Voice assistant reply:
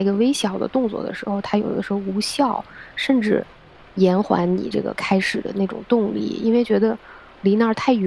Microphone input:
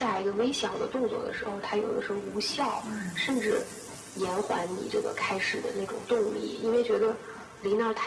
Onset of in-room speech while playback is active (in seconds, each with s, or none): 2.8 s